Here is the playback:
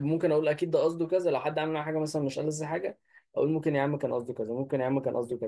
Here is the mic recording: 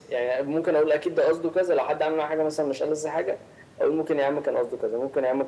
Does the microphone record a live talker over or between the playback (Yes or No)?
No